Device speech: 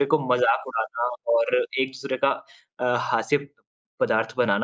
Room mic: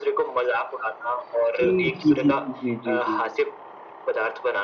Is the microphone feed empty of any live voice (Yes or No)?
No